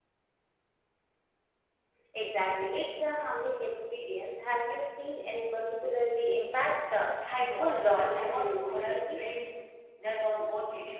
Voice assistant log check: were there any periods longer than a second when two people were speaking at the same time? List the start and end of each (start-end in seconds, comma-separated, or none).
7.6-9.2